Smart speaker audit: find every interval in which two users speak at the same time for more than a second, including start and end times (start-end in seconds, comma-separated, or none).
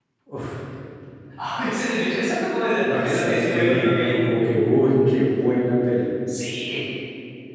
2.9-4.2